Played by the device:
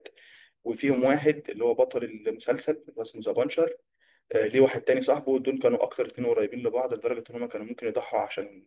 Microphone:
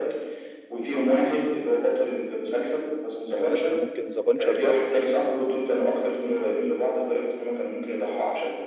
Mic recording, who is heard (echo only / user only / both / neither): both